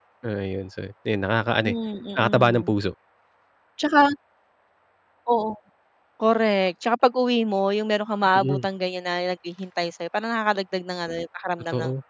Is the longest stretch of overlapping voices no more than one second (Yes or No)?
Yes